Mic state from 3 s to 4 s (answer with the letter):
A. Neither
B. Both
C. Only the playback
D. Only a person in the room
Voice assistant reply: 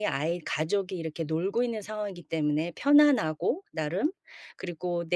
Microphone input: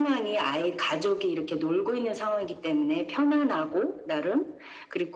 C